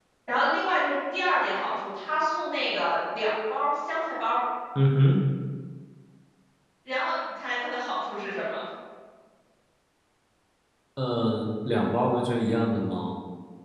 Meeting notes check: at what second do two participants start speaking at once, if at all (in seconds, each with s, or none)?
none